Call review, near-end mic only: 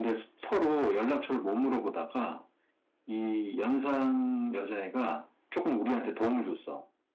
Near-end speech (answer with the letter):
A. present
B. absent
B